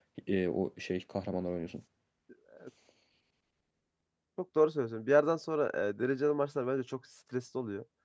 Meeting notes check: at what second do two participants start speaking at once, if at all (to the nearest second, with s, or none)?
none